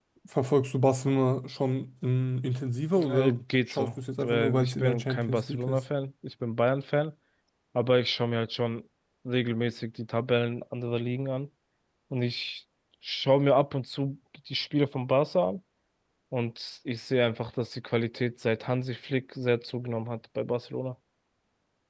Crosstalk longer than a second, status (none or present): present